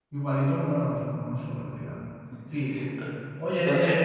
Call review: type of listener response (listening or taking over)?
listening